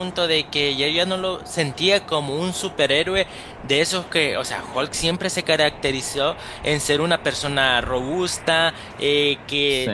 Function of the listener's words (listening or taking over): listening